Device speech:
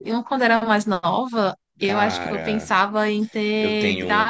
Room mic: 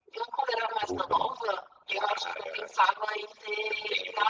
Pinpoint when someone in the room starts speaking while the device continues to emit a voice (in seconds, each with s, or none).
0.8 s